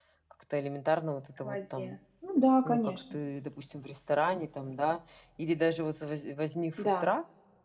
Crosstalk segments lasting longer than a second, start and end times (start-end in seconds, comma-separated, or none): none